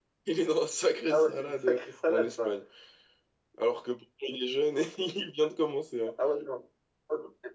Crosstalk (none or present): present